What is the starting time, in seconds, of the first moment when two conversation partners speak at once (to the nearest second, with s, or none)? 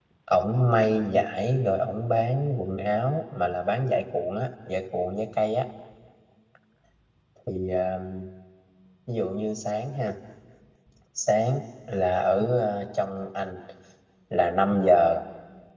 none